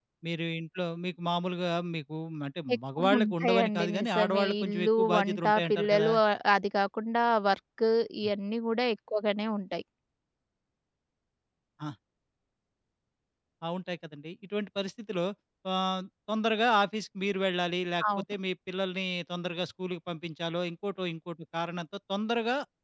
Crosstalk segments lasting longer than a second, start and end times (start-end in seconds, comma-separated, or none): 2.8-6.1